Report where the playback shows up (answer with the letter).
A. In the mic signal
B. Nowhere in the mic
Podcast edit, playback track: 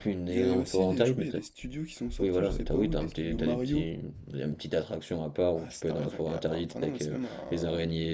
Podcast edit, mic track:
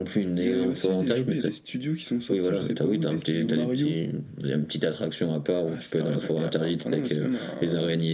A